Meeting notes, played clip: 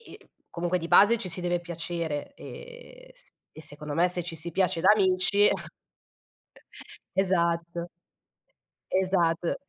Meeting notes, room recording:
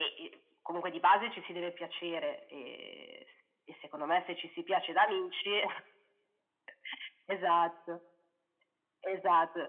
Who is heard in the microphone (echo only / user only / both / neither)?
echo only